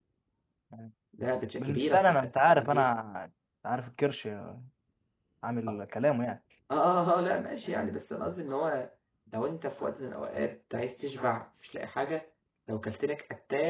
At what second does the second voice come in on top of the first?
1.6 s

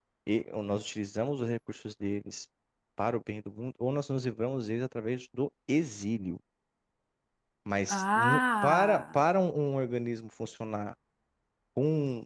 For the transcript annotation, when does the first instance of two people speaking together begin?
7.9 s

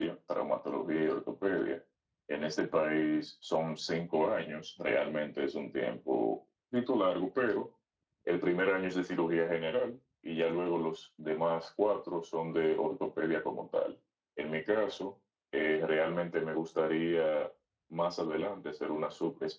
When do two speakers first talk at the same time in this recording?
none

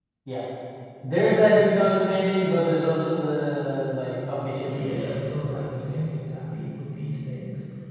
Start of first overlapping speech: 4.7 s

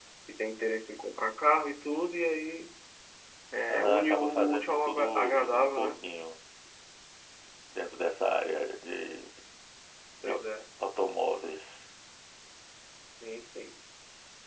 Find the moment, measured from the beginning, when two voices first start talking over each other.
3.7 s

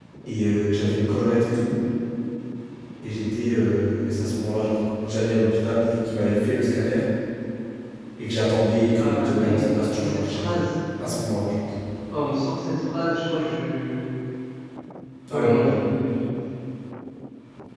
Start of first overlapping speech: 8.9 s

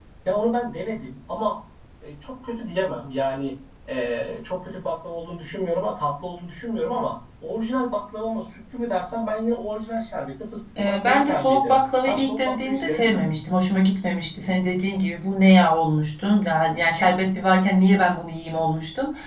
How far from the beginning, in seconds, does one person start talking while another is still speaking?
10.8 s

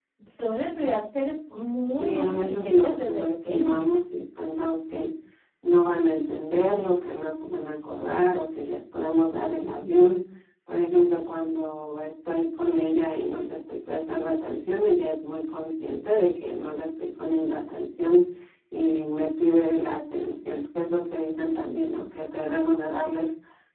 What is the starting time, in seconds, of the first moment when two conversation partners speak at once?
2.0 s

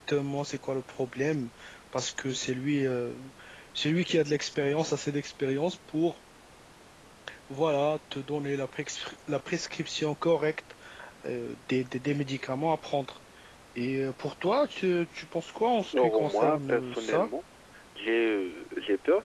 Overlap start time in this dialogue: 15.9 s

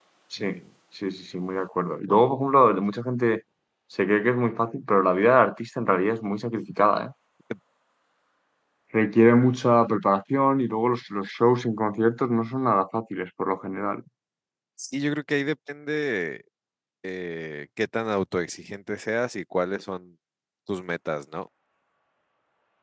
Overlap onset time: none

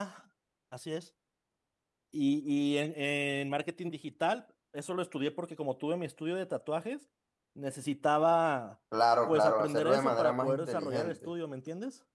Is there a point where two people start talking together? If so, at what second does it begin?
9.3 s

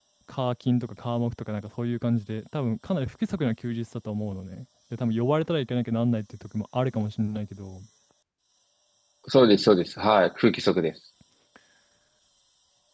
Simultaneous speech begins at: none

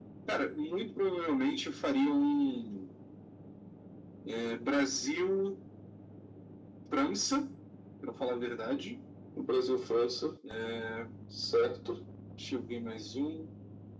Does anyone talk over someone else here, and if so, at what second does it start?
none

